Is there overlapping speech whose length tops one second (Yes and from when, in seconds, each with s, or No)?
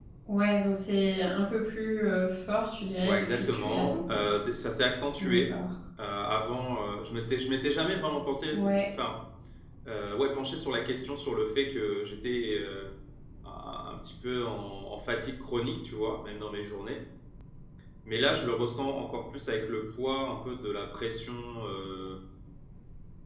Yes, from 3.0 s